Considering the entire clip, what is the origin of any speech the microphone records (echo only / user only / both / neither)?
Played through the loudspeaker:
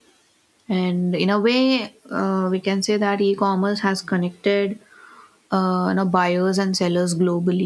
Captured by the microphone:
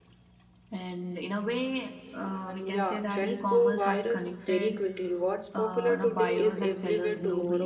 both